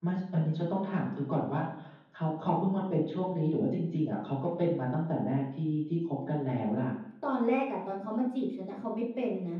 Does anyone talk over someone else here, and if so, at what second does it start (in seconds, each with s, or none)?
none